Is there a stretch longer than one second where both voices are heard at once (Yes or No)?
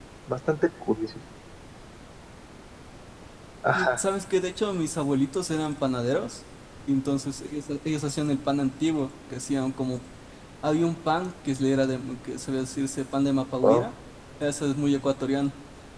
No